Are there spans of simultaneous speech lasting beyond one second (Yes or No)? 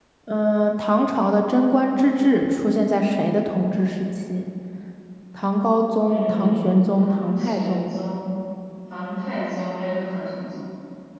Yes